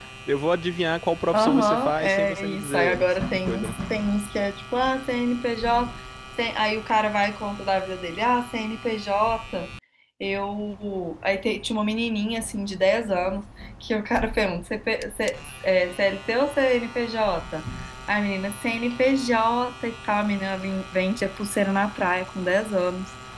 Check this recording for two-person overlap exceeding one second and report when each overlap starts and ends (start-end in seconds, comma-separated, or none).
1.3-3.8